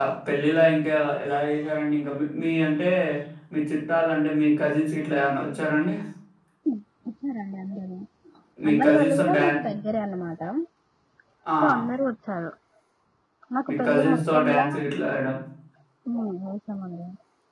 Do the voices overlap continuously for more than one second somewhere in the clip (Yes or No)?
Yes